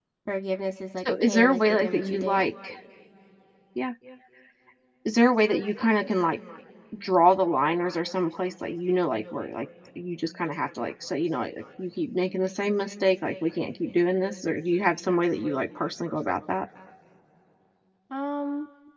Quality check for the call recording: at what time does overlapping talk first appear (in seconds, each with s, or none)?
1.0 s